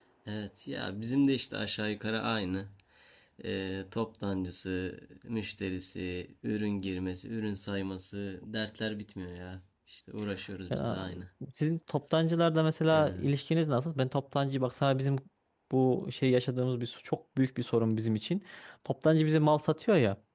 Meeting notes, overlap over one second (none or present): none